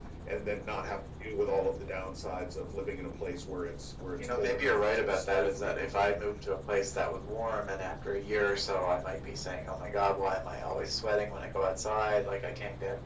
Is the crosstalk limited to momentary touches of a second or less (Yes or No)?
No